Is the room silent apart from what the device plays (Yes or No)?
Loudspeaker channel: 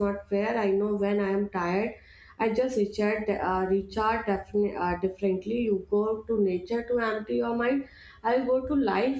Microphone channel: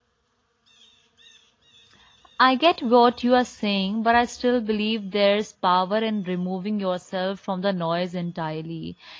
No